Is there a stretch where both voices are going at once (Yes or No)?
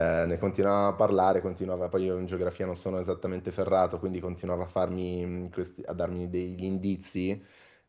No